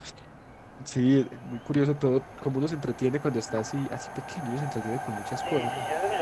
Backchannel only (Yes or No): No